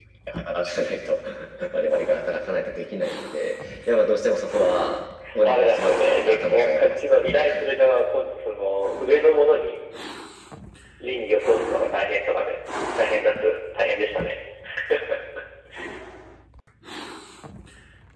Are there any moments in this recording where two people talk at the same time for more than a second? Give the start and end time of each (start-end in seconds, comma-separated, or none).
5.4-7.1